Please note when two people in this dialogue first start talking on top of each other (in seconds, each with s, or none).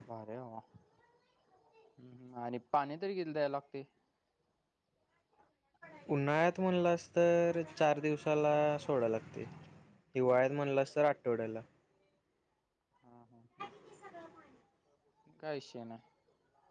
none